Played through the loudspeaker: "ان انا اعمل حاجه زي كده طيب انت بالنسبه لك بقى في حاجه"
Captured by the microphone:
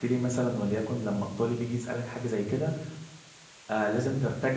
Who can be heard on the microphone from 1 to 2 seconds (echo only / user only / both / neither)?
user only